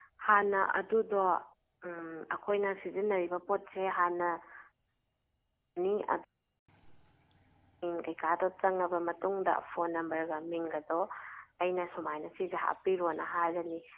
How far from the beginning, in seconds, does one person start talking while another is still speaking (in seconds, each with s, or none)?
none